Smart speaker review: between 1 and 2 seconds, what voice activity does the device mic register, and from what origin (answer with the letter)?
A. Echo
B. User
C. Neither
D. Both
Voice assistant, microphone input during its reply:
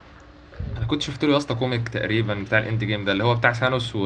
B